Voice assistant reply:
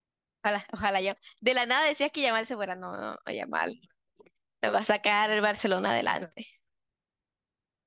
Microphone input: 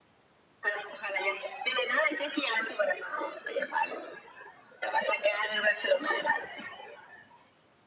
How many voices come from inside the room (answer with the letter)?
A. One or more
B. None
B